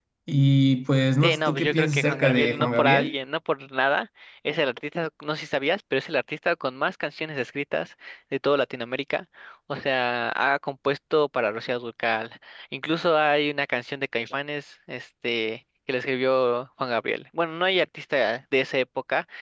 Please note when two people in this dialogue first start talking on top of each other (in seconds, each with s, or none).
1.2 s